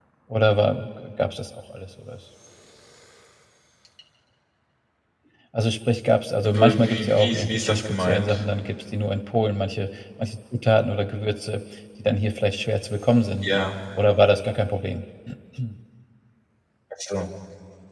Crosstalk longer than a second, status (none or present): present